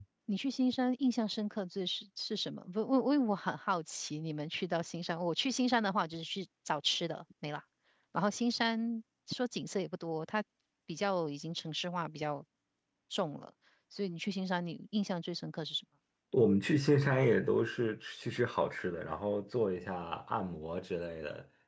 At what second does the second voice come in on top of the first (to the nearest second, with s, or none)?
none